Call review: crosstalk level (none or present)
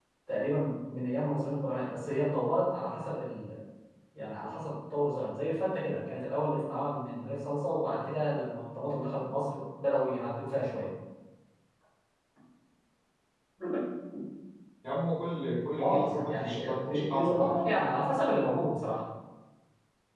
present